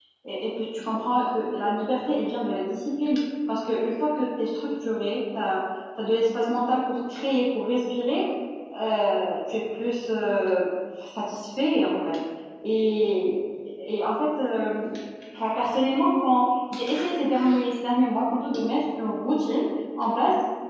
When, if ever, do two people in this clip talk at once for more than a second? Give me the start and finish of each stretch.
none

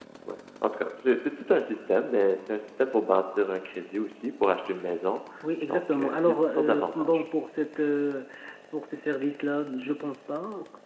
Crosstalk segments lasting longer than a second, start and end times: 5.7-7.2

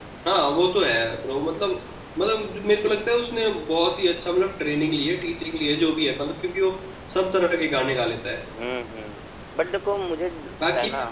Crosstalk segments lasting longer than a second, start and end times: none

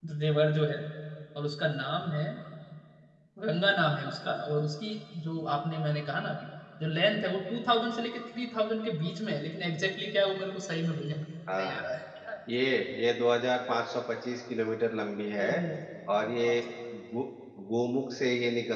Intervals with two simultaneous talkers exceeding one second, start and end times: none

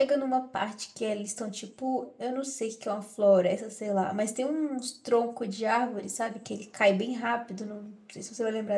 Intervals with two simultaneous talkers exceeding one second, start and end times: none

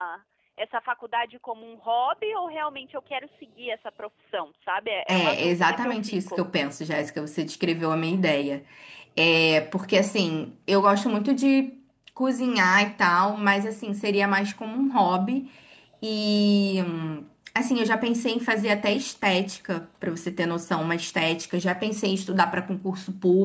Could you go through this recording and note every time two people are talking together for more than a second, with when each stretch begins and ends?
5.1-6.4

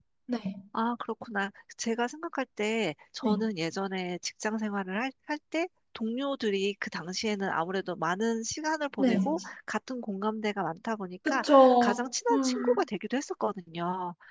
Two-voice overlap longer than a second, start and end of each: 11.3-12.8

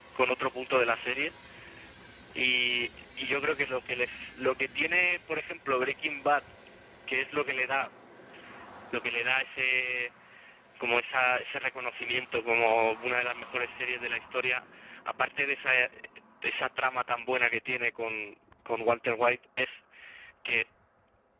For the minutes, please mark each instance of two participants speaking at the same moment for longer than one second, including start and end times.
none

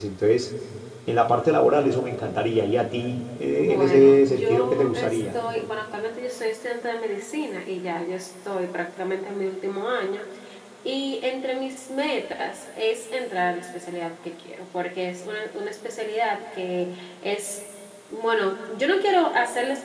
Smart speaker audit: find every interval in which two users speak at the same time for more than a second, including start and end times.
3.6-5.3

